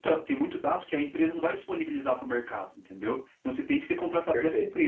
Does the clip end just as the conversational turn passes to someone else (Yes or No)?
No